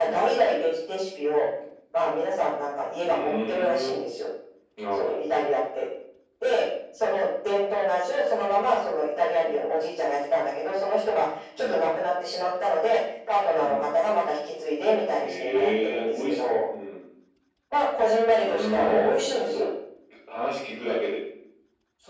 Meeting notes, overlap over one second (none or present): present